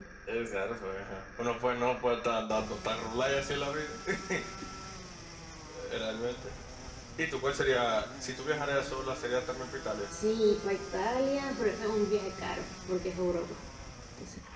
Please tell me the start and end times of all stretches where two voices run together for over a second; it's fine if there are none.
none

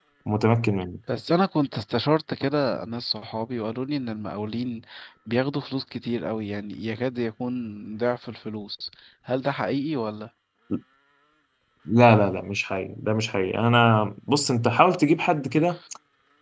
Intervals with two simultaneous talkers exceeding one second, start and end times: none

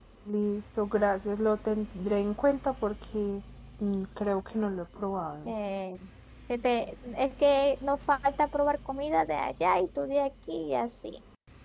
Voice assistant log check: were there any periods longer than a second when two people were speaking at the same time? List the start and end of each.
none

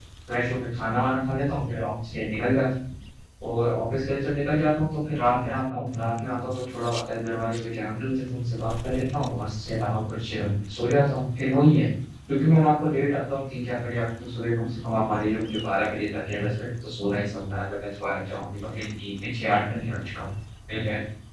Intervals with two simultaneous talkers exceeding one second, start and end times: none

